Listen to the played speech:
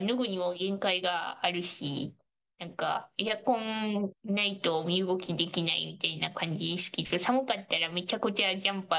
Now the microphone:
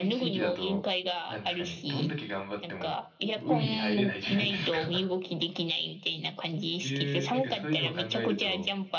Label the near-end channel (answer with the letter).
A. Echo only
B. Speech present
B